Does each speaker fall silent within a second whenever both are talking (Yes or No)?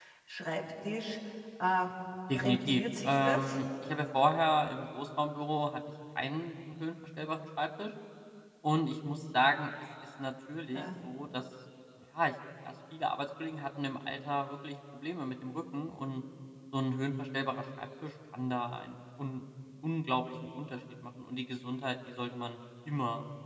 No